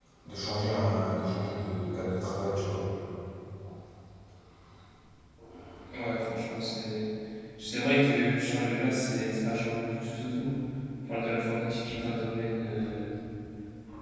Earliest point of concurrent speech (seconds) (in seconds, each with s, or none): none